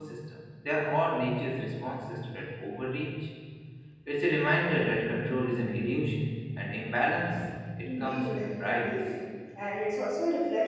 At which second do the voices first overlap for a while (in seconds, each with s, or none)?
7.8 s